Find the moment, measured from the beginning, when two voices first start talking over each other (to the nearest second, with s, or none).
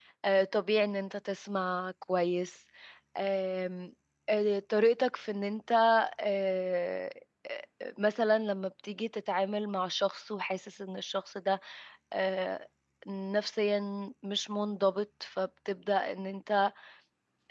none